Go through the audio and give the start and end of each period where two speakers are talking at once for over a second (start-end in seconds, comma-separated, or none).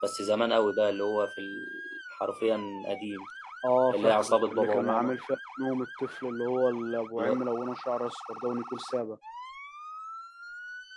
3.9-5.1